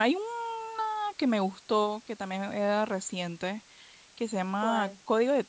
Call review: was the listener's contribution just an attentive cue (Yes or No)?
Yes